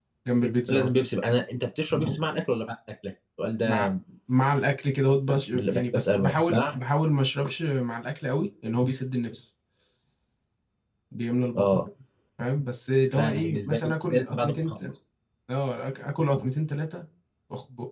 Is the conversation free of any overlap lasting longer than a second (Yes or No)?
No